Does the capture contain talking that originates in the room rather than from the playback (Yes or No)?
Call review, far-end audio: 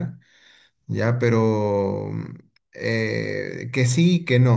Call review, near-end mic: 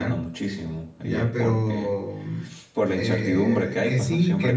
Yes